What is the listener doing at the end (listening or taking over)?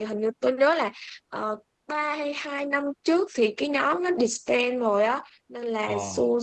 listening